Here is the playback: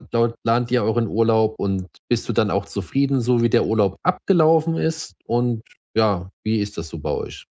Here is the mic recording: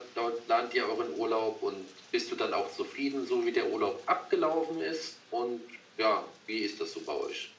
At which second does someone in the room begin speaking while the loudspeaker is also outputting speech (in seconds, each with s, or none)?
none